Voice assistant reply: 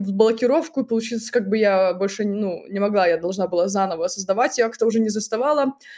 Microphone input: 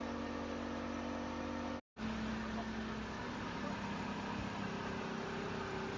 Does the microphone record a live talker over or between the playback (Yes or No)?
No